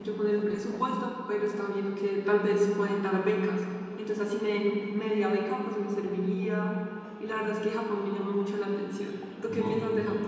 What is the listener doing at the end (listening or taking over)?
taking over